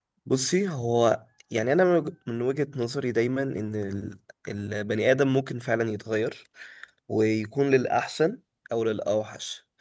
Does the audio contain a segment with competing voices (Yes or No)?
No